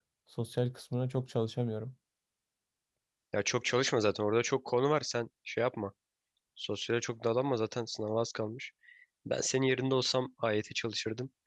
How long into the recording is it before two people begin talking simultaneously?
none

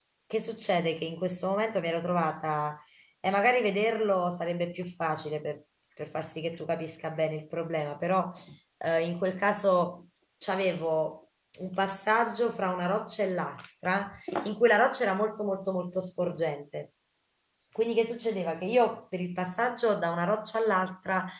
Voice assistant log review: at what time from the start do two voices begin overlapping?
none

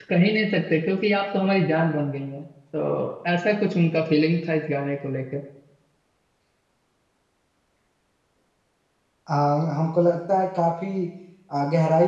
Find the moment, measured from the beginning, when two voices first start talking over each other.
none

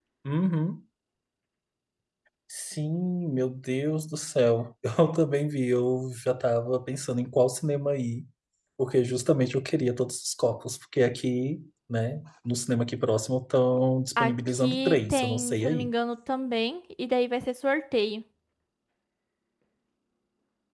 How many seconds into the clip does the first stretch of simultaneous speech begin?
14.2 s

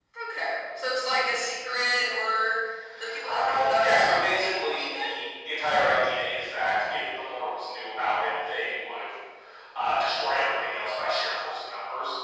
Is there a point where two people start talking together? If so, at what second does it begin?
3.1 s

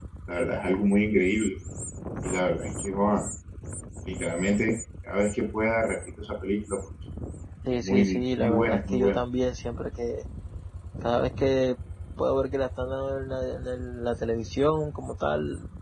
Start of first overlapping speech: 7.8 s

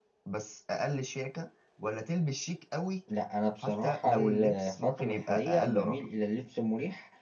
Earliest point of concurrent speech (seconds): 3.6 s

